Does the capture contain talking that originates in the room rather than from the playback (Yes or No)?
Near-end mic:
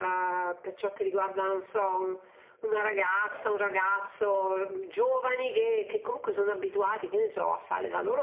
No